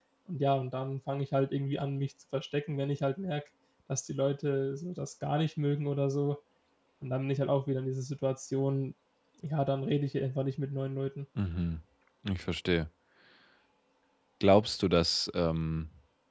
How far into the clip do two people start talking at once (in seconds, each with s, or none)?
none